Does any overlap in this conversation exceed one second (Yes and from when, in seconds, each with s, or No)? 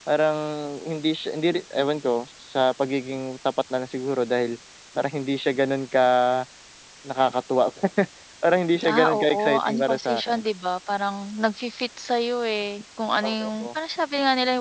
Yes, from 8.9 s